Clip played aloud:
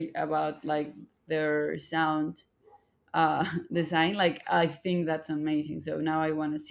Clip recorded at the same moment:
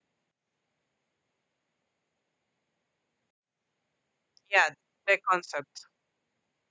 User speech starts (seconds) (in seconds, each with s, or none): 4.5 s